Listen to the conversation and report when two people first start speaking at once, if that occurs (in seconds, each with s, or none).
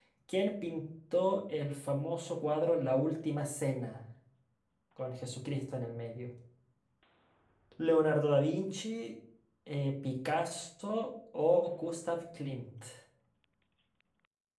none